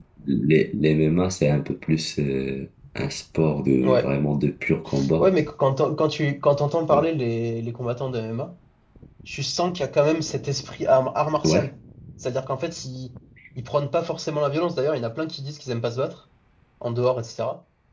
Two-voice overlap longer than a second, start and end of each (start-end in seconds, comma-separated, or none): none